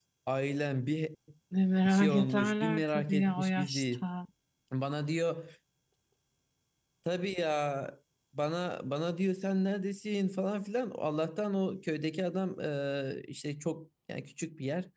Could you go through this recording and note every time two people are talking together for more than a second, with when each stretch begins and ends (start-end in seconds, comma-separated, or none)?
1.8-4.0